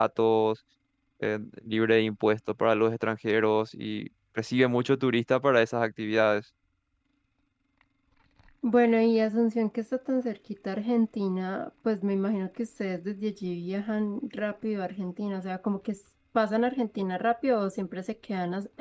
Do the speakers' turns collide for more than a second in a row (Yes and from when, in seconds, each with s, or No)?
No